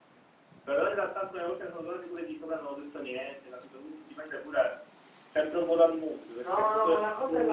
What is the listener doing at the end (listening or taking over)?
taking over